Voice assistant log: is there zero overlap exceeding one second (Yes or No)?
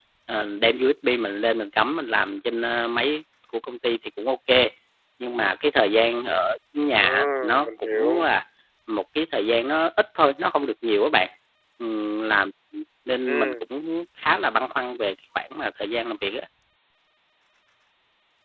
No